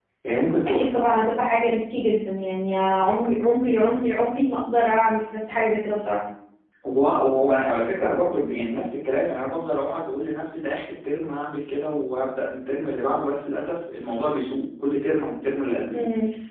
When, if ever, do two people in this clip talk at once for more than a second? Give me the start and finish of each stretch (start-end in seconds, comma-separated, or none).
none